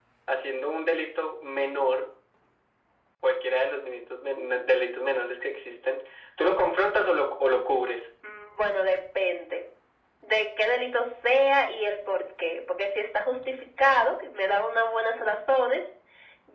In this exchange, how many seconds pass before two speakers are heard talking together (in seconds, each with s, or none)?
none